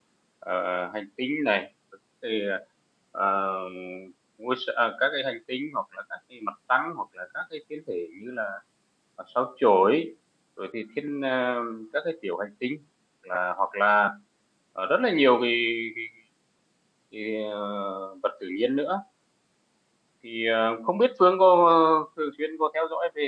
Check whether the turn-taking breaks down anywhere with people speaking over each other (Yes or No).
No